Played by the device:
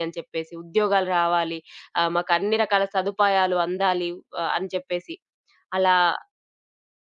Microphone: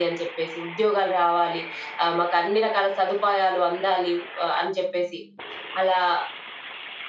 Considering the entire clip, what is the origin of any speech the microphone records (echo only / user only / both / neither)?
echo only